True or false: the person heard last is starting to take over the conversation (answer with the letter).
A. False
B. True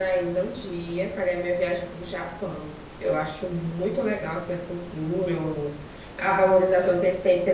A